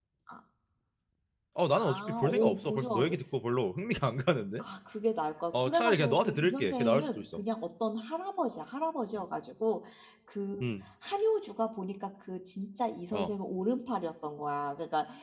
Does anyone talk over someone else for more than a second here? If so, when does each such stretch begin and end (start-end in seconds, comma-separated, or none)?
1.8-3.0, 5.5-7.4